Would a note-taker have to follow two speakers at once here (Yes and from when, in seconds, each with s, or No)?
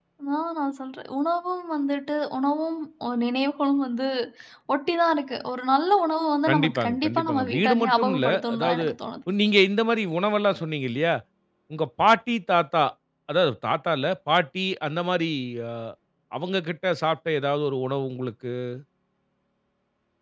Yes, from 6.4 s